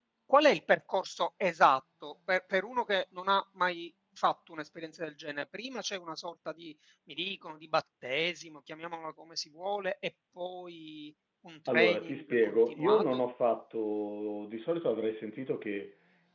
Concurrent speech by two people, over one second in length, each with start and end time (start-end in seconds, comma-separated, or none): 11.7-13.2